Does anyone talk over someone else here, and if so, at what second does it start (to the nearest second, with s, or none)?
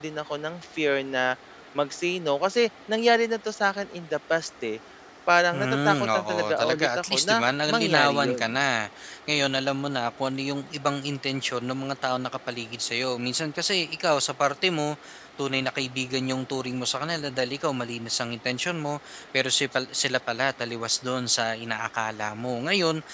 6 s